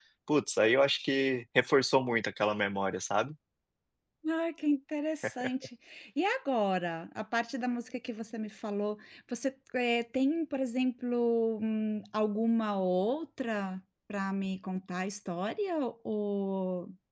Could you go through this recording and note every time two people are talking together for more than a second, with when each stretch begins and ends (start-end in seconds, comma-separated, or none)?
none